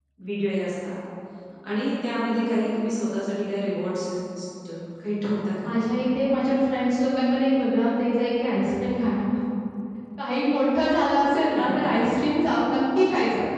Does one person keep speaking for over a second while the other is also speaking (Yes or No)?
No